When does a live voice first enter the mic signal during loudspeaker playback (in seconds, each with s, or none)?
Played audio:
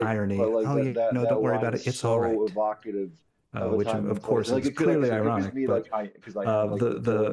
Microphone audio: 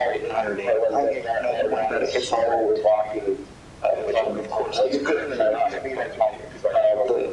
none